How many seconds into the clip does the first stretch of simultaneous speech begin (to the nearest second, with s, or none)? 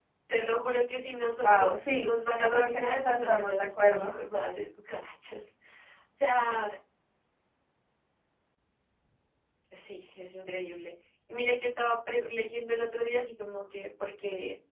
1 s